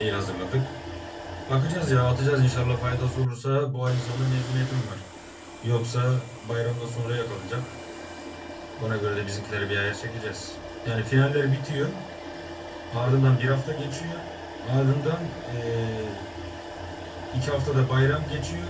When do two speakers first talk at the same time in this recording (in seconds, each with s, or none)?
none